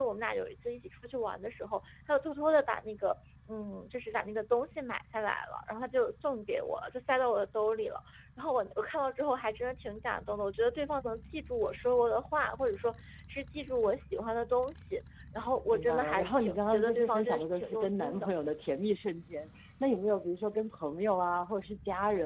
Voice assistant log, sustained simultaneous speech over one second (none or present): present